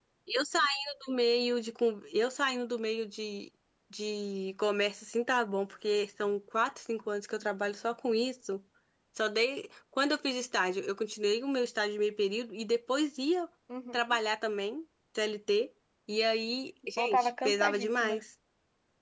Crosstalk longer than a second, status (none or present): present